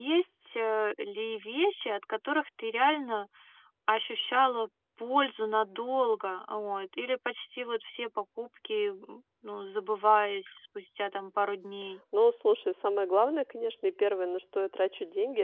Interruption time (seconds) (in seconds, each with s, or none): none